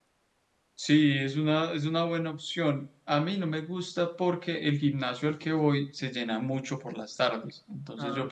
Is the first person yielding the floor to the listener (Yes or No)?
No